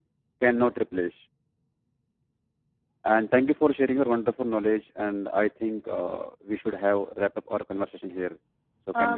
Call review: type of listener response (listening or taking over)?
taking over